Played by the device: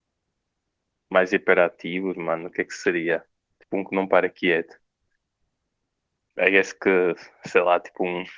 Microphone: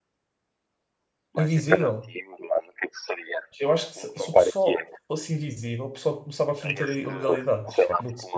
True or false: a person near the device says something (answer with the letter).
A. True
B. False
A